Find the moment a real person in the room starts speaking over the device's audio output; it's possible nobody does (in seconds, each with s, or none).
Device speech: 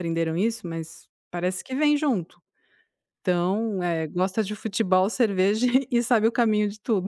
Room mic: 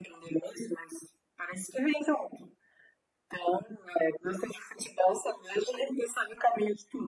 none